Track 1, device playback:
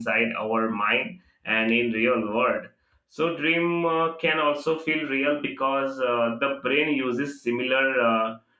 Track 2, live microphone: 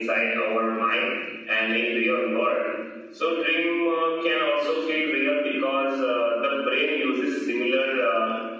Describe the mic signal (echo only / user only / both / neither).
echo only